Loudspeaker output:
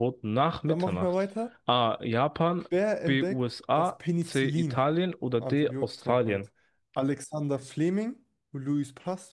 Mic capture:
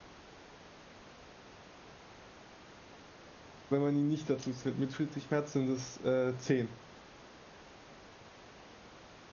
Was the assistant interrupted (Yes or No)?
Yes